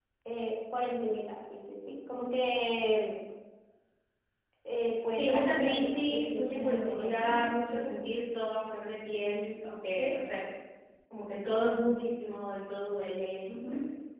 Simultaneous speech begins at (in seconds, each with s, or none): 5.2 s